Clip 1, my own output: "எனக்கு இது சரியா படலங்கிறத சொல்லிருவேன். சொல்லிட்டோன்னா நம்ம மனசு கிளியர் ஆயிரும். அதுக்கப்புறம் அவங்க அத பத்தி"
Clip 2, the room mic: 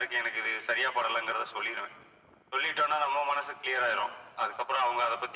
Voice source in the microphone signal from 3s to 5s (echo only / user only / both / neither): echo only